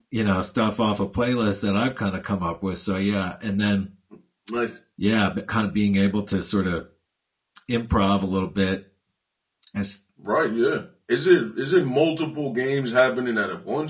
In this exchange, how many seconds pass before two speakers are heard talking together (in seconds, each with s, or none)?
none